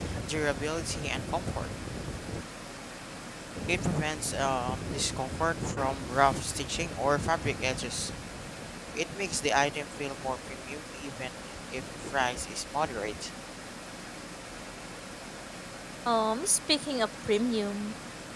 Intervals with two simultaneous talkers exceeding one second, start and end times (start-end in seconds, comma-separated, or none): none